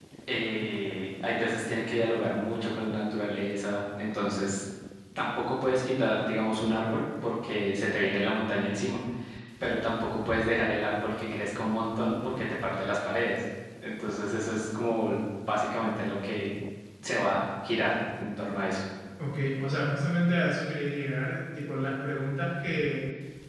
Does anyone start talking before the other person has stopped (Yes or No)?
No